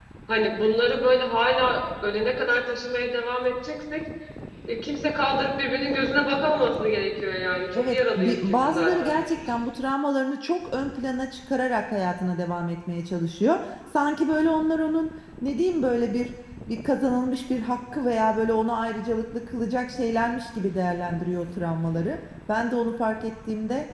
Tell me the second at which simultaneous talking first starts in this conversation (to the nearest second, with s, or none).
8 s